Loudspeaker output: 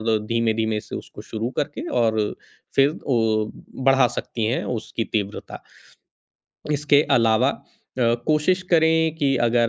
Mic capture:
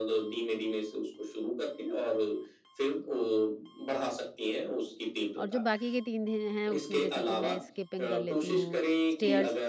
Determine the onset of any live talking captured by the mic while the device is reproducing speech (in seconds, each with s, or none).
5.4 s